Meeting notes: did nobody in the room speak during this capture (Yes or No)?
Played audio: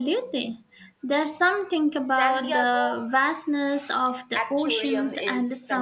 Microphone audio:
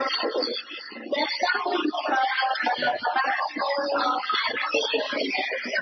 Yes